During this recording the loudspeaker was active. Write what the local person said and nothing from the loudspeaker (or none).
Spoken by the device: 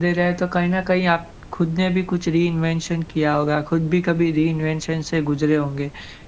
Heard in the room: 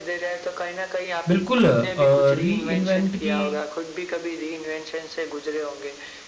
बिल्कुल अ, रीइन्वेंट की